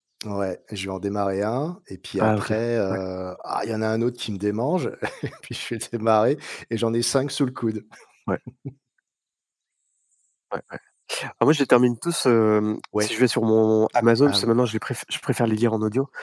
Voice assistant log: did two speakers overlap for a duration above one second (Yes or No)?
No